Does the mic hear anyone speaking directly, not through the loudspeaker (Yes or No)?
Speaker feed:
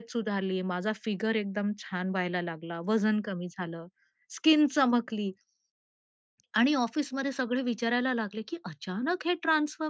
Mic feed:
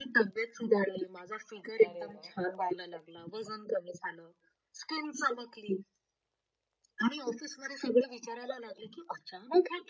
Yes